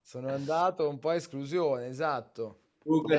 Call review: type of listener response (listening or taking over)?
taking over